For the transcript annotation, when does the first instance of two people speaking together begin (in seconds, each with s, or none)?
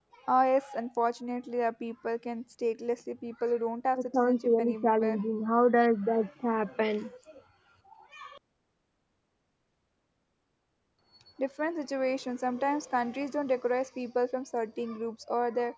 4.0 s